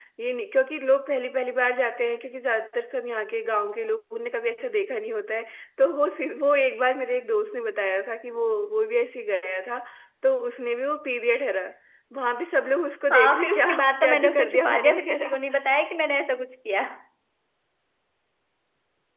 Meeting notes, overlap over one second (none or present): present